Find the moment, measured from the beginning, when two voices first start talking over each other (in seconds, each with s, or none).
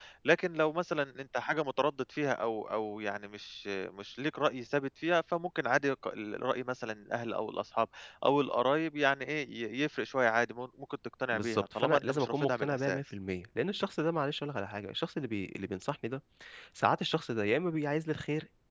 11.3 s